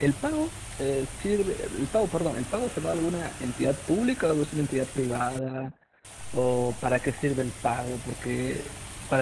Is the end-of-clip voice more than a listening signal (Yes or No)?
No